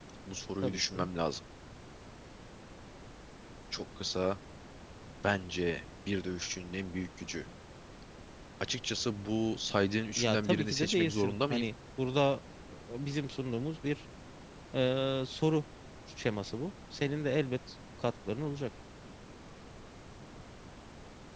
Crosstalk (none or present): present